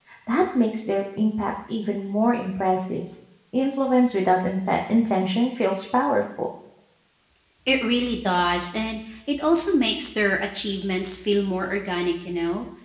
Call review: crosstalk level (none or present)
none